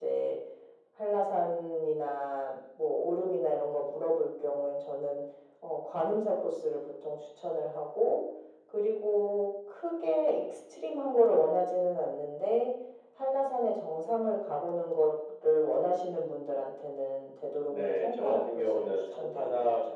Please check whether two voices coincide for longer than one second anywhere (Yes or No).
Yes